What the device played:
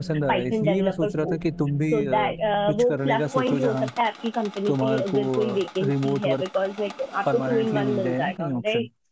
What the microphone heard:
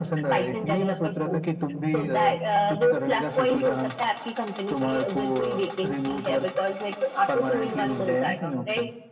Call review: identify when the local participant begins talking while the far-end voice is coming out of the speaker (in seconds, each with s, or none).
none